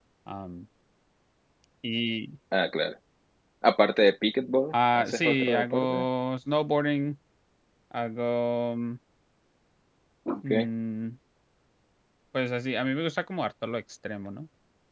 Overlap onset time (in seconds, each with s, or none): 4.7 s